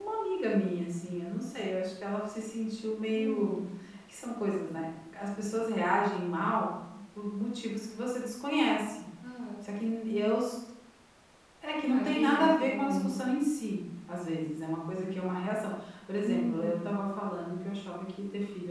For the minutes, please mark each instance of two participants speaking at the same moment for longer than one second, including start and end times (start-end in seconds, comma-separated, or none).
11.9-13.1